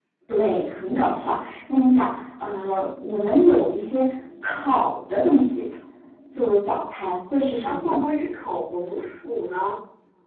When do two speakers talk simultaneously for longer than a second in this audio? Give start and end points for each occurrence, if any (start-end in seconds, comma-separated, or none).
none